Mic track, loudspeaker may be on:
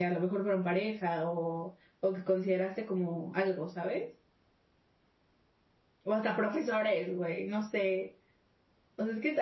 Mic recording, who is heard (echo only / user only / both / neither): user only